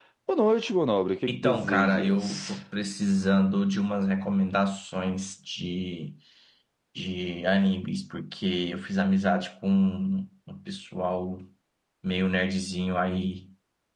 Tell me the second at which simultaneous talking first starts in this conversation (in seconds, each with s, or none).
1.3 s